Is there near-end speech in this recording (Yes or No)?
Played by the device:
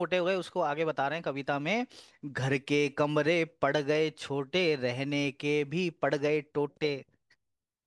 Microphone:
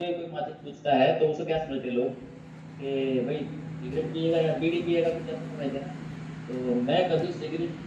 Yes